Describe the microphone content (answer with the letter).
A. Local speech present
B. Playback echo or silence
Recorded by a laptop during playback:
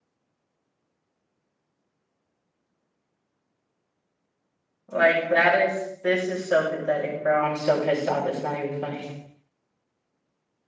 A